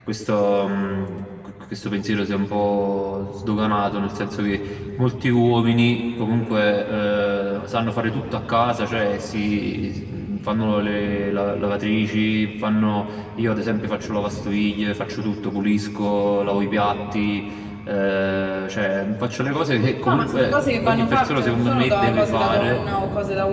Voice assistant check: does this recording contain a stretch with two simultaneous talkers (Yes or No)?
Yes